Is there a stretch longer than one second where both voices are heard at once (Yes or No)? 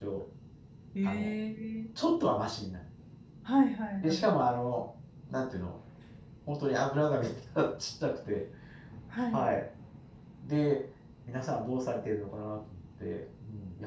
No